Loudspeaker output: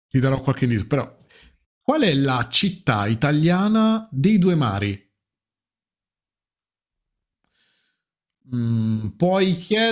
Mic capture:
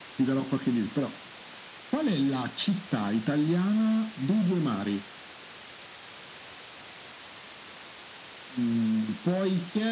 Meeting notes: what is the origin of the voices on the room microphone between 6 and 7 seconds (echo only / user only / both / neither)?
neither